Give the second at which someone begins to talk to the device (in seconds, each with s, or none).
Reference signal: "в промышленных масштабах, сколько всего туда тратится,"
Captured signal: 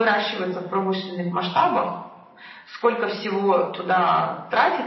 none